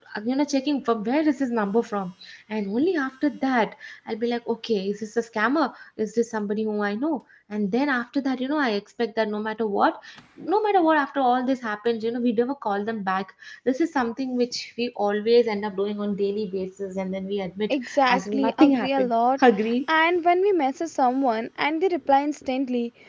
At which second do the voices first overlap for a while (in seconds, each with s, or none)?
17.7 s